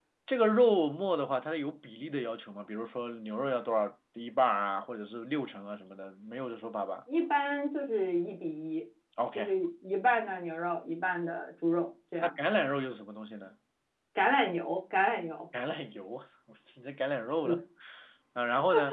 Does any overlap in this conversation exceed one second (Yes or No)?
No